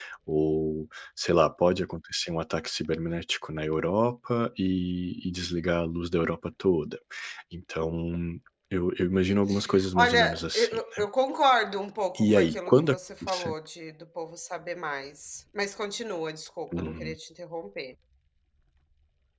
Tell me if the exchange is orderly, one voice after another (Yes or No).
No